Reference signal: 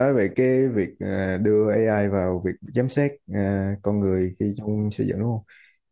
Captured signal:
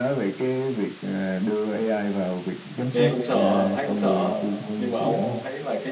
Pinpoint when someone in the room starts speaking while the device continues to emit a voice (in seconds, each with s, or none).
2.9 s